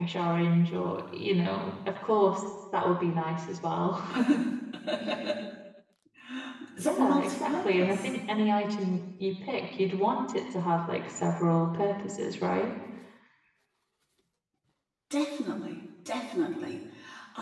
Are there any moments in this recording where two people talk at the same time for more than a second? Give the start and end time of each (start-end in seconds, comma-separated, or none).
6.8-8.1